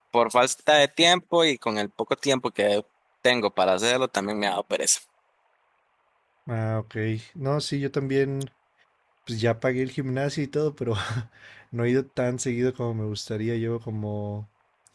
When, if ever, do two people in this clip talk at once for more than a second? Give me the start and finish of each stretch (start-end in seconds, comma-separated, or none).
none